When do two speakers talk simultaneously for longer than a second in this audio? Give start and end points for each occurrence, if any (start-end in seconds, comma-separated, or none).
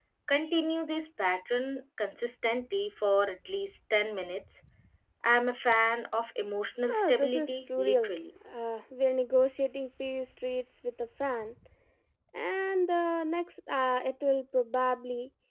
6.9-8.1